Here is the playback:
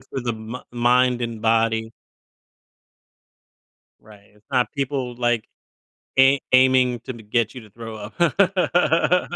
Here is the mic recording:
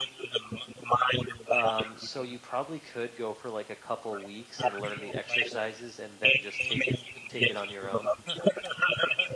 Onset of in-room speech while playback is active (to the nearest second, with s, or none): 1 s